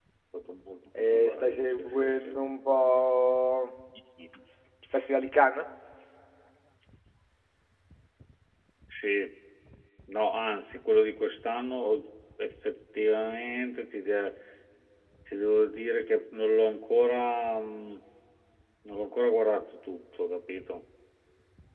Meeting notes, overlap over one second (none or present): present